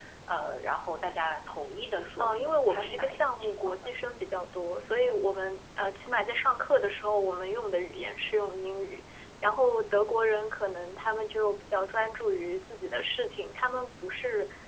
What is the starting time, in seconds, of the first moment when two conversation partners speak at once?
2.2 s

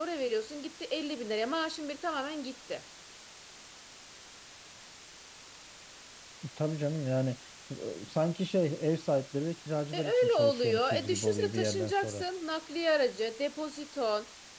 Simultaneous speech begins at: 9.9 s

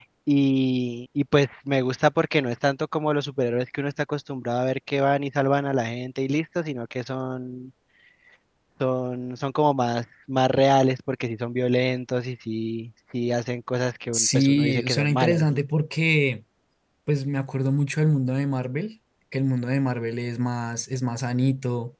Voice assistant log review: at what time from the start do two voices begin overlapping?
14.1 s

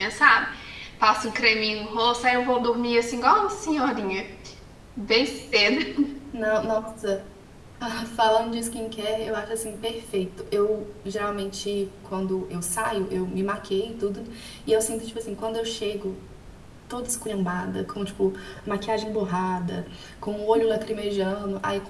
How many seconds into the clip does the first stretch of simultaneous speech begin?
none

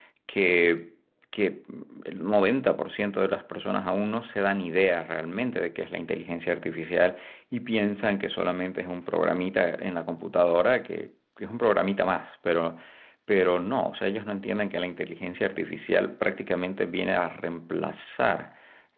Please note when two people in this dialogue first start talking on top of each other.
none

